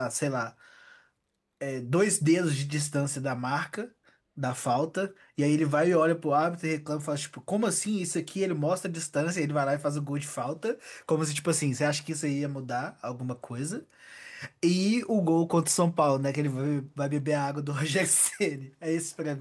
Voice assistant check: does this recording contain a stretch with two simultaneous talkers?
No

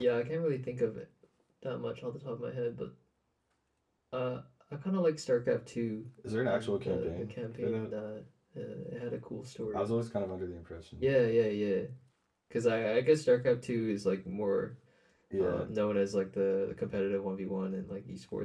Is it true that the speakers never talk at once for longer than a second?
No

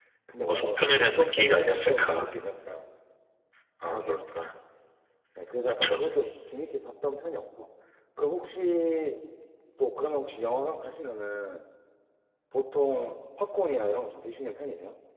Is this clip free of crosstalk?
No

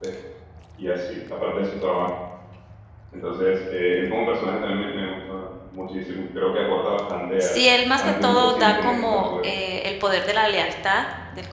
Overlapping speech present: Yes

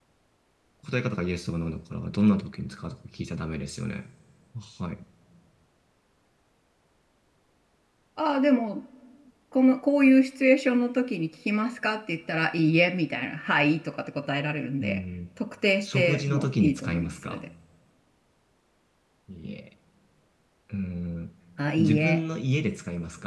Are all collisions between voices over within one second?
No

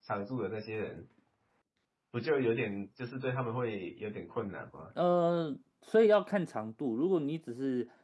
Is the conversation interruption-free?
Yes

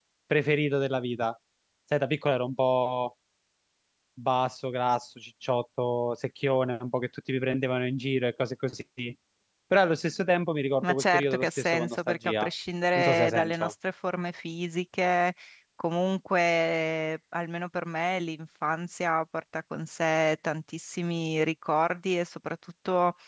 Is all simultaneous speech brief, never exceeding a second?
No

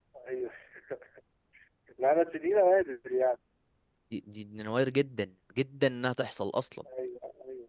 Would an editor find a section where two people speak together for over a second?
No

